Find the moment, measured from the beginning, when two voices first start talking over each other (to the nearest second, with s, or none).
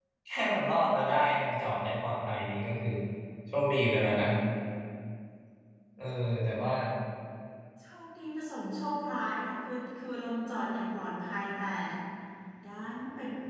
none